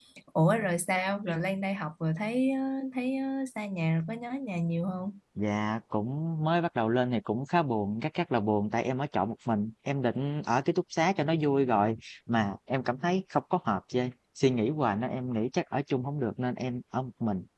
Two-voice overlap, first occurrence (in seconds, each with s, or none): none